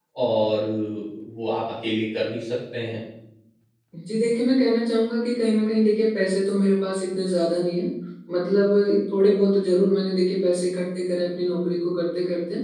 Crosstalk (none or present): none